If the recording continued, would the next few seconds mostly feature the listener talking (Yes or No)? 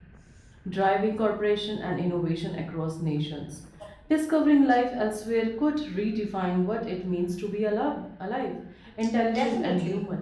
Yes